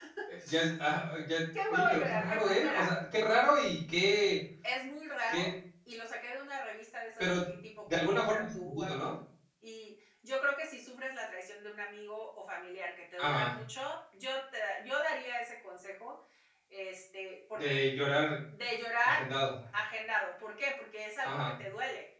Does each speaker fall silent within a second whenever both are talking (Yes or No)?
No